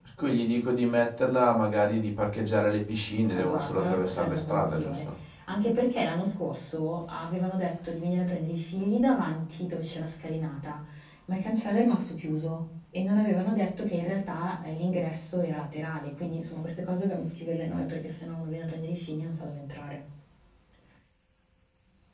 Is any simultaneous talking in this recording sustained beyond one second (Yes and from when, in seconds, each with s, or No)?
Yes, from 3.3 s